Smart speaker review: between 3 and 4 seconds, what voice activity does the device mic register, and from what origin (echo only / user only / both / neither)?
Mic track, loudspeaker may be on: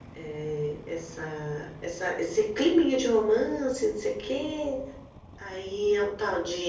echo only